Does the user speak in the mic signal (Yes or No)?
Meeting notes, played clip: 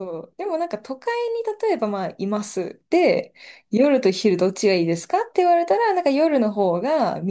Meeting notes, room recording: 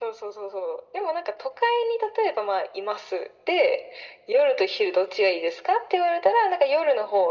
No